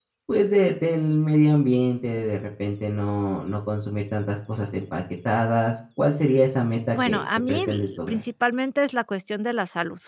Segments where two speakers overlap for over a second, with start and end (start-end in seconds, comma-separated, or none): 6.9-8.2